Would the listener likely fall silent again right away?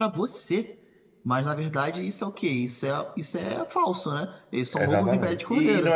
No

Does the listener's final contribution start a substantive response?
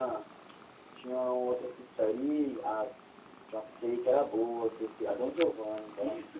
Yes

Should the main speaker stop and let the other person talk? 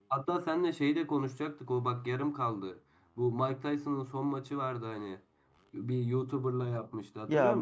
Yes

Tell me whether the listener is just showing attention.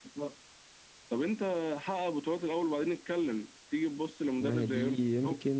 No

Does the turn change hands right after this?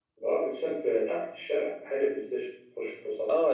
Yes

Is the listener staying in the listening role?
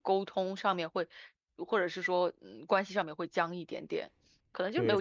No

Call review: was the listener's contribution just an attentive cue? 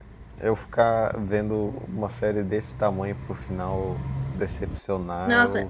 No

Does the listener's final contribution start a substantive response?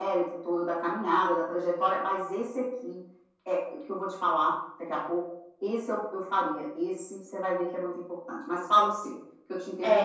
Yes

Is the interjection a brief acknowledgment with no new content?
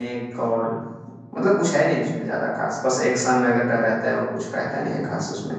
No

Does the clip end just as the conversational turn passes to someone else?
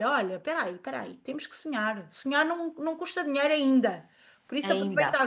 No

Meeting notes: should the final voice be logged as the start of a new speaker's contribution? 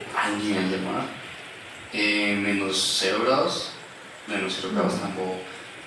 No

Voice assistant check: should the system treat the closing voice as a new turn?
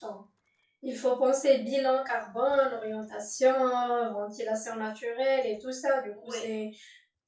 No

